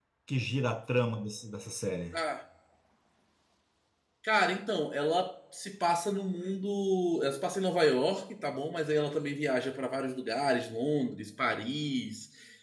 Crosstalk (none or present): none